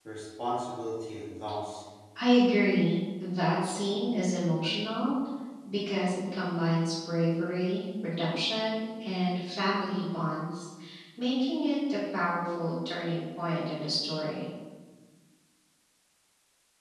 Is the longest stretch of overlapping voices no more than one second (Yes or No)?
Yes